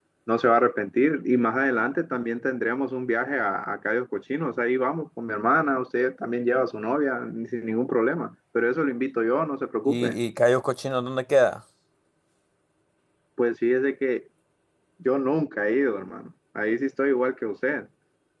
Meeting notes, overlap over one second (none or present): none